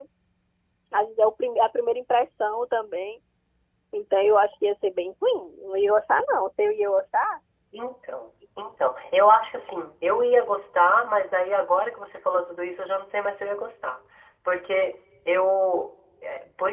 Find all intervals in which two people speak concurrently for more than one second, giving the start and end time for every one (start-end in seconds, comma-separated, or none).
none